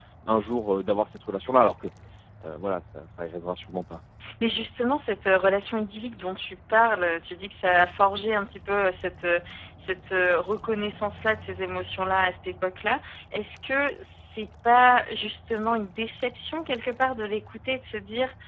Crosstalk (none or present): none